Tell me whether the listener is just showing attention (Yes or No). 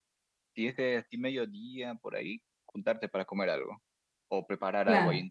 Yes